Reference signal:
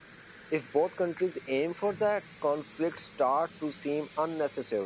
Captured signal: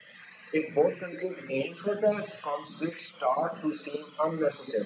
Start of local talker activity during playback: none

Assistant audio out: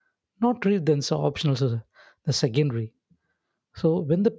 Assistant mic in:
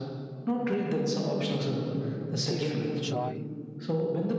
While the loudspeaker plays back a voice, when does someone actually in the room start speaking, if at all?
2.4 s

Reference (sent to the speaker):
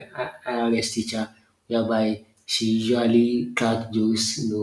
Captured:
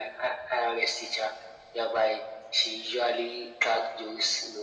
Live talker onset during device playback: none

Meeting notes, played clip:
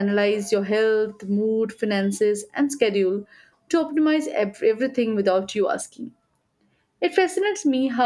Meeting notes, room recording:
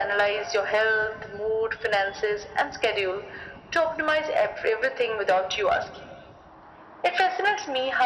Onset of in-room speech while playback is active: none

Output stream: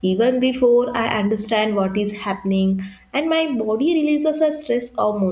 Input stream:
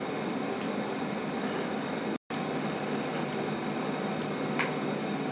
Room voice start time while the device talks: none

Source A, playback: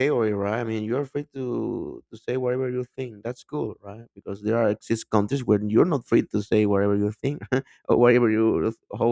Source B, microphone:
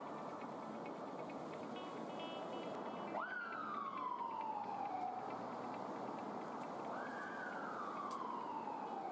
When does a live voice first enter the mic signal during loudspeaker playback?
none

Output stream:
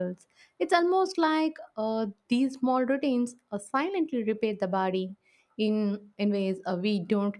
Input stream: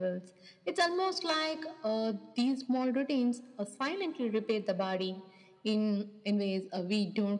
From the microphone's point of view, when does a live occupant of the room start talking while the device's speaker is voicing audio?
none

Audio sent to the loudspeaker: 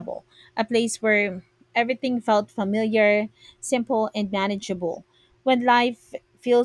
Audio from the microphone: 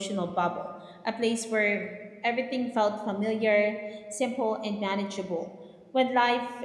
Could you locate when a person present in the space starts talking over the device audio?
none

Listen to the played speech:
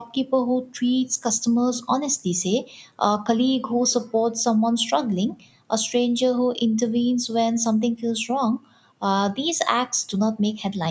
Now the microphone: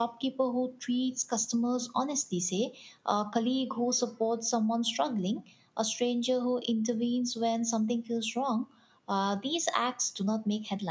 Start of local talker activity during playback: none

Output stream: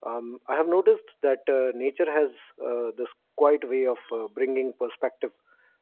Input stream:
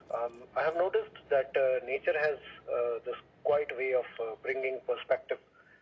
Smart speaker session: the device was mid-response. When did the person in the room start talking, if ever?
none

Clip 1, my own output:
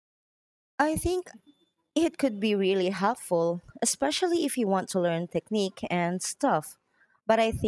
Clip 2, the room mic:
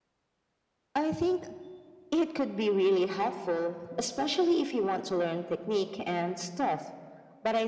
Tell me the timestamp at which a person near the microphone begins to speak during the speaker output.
none

